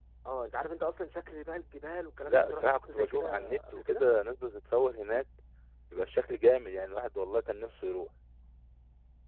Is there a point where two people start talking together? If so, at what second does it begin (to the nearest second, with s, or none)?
2 s